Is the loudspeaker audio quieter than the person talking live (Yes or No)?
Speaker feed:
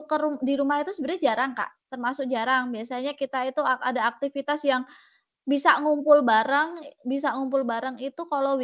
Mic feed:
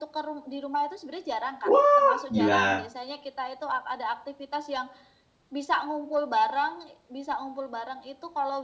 Yes